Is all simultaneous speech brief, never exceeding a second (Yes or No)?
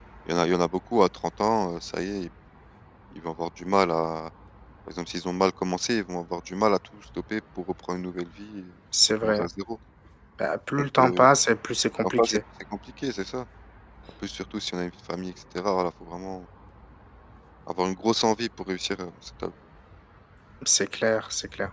Yes